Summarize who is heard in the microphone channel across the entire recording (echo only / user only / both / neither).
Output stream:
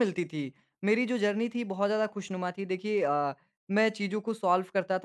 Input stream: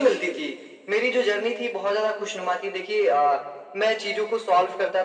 echo only